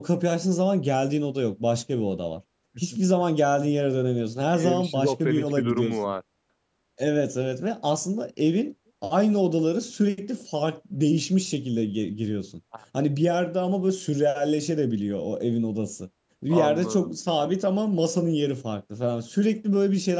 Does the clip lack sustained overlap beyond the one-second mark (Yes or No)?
No